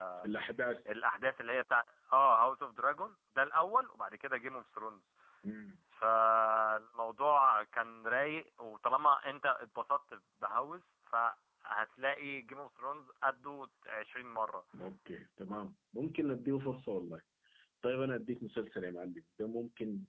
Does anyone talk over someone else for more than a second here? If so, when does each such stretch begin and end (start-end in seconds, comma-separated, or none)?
none